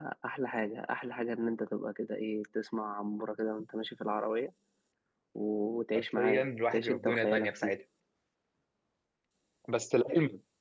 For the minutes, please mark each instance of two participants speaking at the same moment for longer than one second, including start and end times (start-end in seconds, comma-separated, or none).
6.0-7.8